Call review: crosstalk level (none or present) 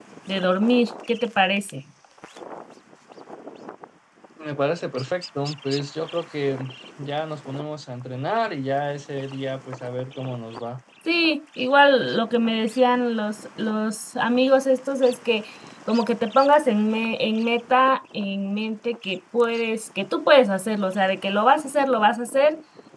none